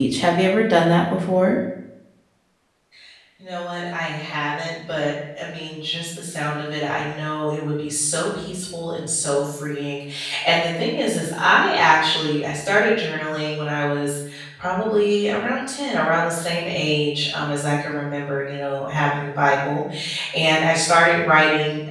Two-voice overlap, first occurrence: none

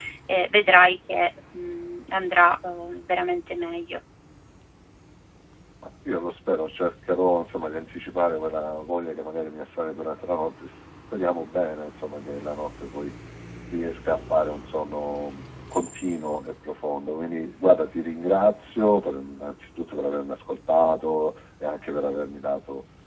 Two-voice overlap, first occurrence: none

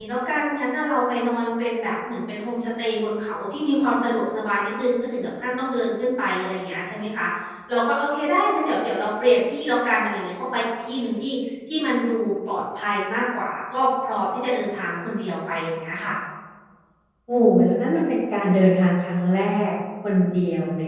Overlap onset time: none

